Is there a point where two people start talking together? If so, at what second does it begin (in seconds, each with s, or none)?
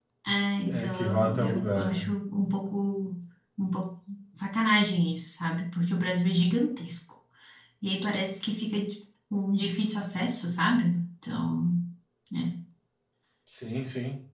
0.7 s